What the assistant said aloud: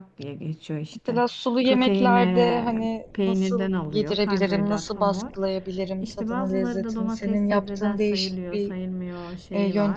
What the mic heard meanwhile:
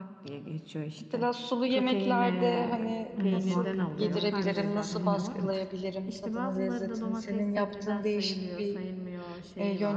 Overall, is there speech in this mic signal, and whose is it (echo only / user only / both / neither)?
both